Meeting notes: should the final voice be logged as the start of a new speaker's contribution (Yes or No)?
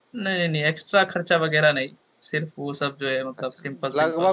Yes